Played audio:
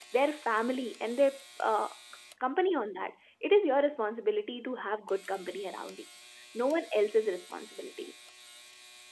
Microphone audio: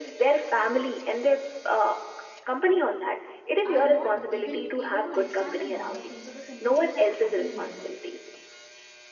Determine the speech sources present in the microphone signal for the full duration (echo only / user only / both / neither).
both